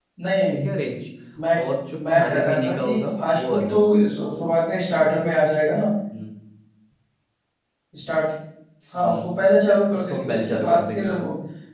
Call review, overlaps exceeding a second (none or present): present